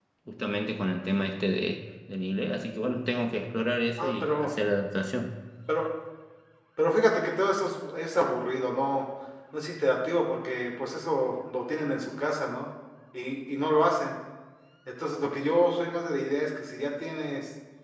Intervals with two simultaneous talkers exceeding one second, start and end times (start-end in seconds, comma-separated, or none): none